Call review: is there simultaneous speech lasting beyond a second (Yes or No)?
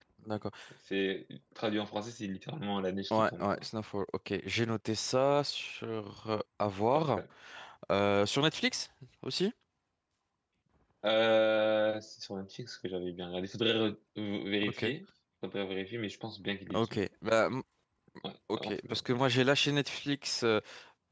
No